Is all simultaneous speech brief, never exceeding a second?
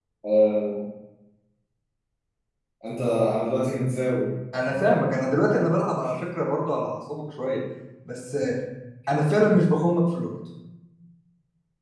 Yes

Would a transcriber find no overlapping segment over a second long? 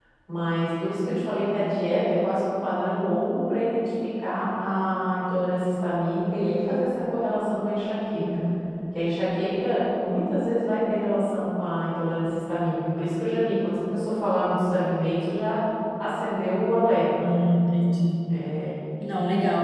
Yes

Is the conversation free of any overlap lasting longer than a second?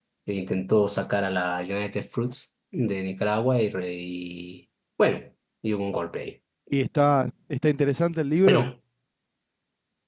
Yes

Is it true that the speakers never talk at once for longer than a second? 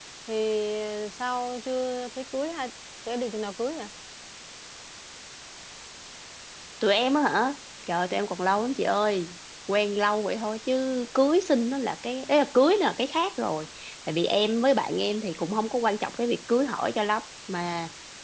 Yes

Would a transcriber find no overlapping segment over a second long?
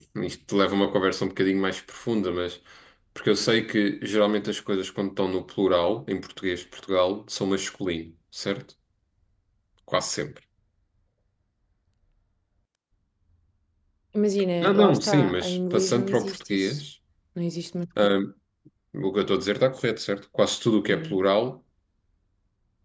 No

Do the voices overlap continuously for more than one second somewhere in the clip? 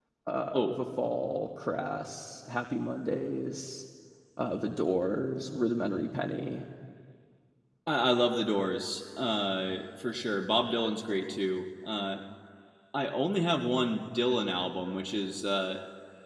No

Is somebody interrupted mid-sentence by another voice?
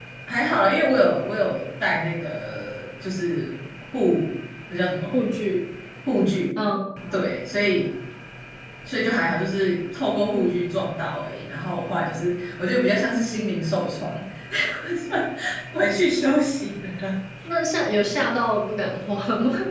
No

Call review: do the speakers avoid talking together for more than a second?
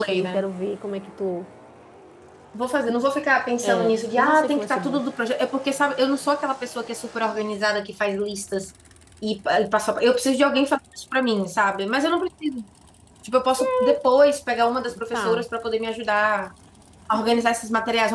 No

